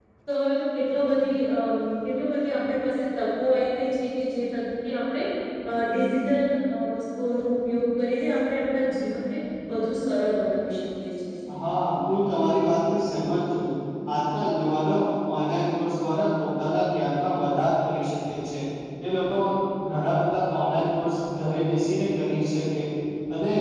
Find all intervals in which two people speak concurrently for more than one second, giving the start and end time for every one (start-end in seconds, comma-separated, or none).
none